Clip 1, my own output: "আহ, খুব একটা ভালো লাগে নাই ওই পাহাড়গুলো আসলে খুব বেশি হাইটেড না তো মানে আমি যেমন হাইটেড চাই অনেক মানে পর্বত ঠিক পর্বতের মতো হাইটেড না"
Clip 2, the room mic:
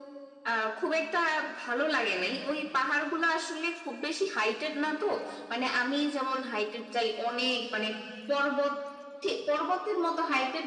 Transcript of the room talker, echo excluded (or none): none